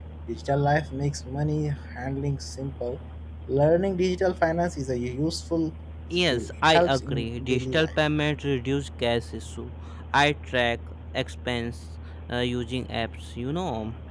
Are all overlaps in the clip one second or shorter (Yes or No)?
No